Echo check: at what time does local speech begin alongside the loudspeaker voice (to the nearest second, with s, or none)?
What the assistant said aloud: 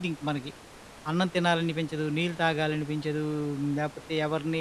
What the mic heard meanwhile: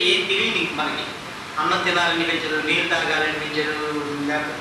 none